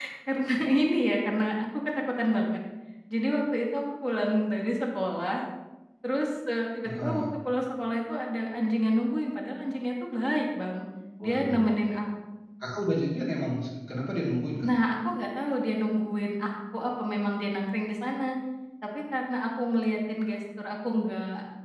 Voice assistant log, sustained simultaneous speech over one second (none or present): none